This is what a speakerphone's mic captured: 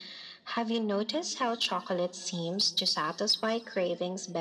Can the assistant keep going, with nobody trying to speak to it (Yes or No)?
Yes